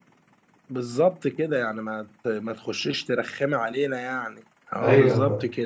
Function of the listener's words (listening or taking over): taking over